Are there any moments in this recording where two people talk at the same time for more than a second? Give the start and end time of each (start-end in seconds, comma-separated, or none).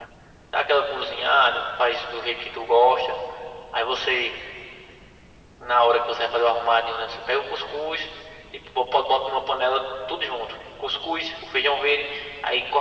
none